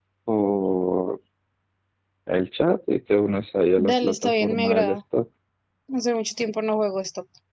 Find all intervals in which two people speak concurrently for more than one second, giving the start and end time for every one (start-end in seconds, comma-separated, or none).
3.8-5.0